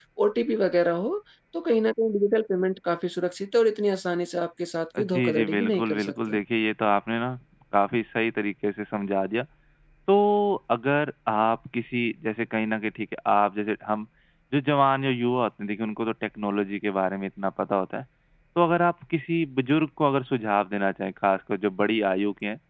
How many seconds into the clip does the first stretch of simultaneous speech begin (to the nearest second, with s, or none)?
5 s